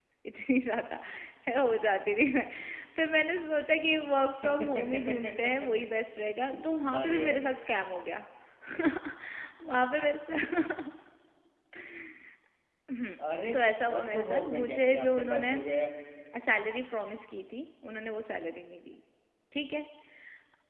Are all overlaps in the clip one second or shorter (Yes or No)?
No